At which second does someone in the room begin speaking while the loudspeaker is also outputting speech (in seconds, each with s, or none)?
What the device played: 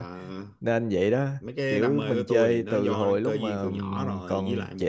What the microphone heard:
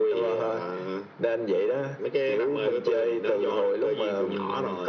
none